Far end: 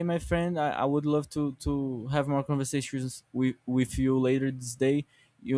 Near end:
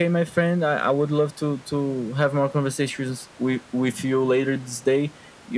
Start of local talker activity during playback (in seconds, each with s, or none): none